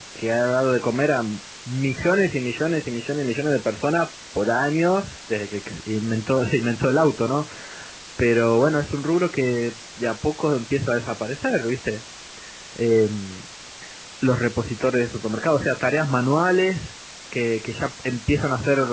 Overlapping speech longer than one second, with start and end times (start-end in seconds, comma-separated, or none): none